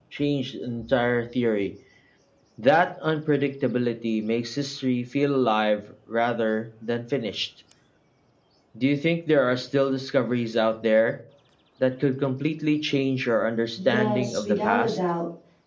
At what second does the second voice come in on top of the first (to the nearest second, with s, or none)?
14 s